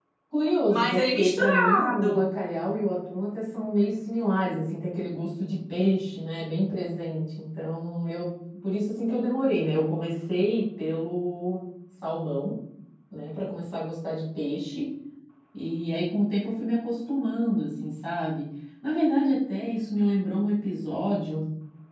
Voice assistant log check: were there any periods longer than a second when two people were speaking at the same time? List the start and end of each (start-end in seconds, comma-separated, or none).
0.7-2.3